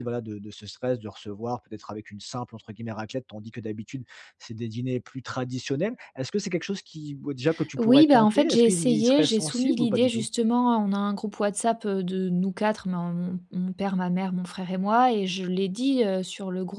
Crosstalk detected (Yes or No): Yes